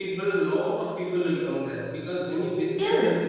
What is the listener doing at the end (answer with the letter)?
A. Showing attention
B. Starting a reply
A